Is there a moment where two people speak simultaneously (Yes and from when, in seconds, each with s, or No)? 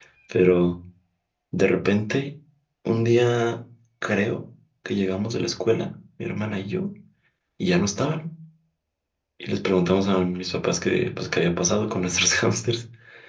No